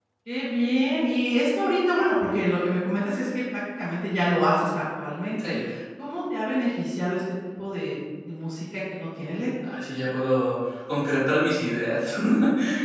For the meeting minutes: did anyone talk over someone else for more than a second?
No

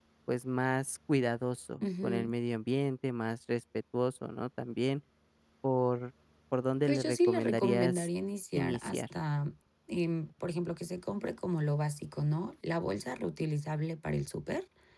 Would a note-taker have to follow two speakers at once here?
Yes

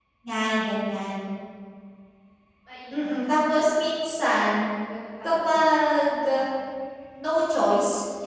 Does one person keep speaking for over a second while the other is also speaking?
No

